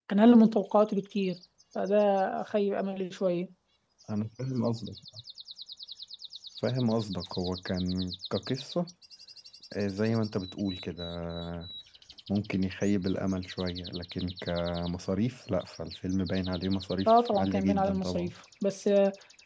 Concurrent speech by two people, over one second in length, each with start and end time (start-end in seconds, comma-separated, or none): 17.1-18.3